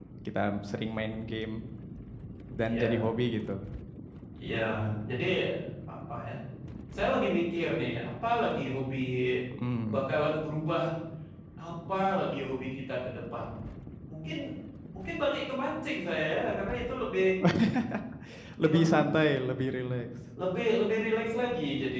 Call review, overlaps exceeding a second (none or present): none